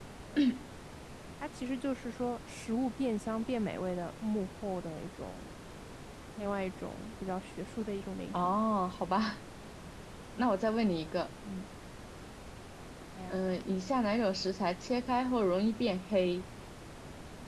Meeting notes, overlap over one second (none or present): none